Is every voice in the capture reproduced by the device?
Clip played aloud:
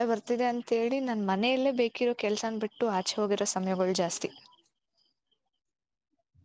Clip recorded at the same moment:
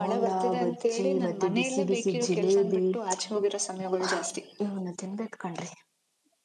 No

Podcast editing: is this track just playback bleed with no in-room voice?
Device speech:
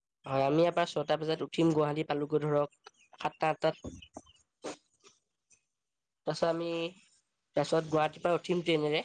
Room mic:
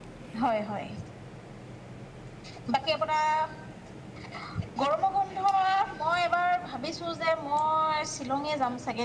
No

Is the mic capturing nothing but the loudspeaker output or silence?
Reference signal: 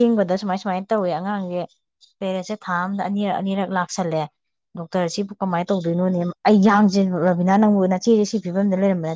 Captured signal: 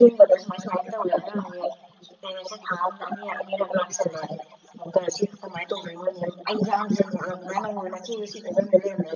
Yes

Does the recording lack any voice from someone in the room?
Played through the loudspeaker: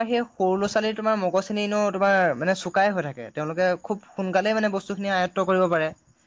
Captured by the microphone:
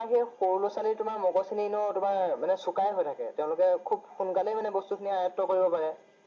Yes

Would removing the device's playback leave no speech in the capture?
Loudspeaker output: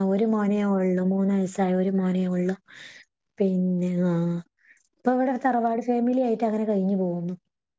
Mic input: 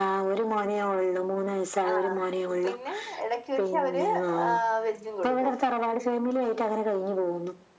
No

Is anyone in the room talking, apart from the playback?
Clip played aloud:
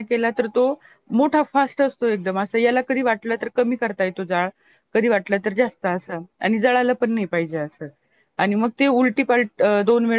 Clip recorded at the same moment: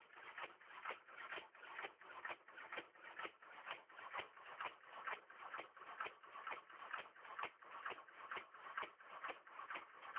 No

